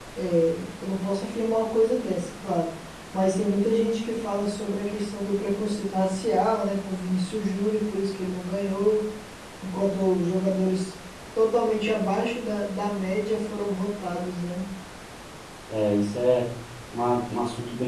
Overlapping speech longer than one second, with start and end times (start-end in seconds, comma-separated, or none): none